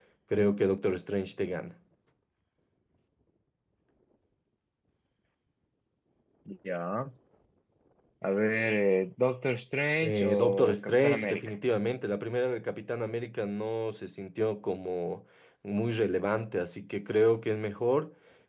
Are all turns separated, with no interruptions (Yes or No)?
No